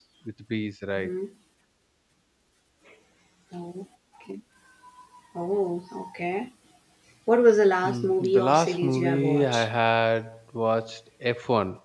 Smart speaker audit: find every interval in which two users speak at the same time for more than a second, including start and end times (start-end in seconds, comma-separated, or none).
7.8-9.7